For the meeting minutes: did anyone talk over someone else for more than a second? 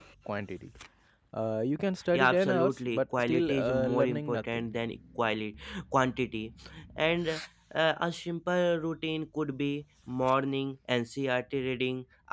Yes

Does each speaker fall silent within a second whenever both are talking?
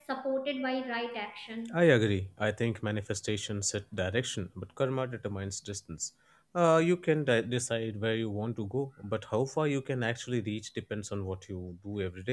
Yes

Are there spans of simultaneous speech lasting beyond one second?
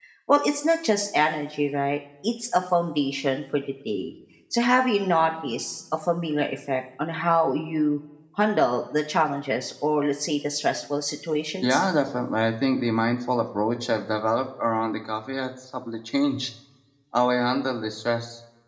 No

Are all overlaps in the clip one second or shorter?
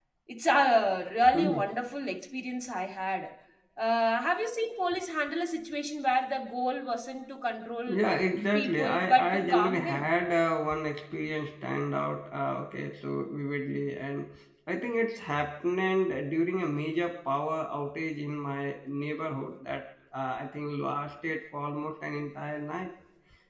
No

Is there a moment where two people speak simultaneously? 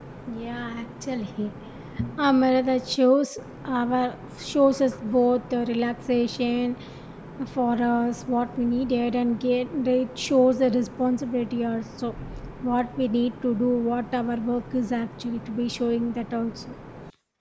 No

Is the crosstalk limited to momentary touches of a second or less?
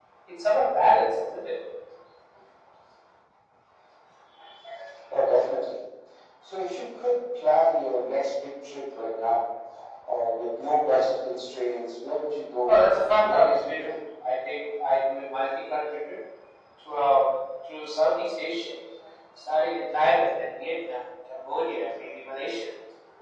No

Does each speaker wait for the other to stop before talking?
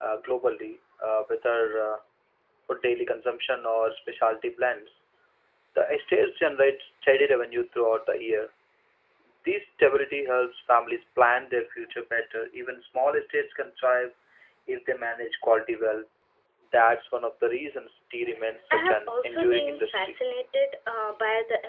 No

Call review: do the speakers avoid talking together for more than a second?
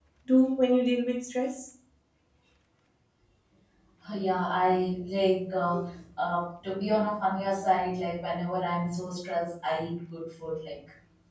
Yes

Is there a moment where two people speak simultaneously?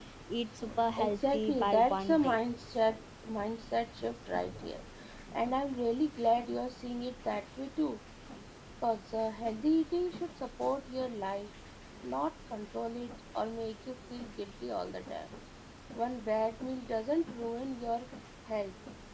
Yes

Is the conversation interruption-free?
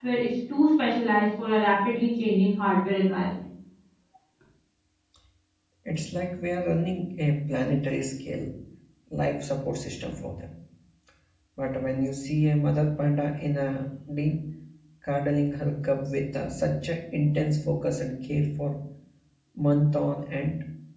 Yes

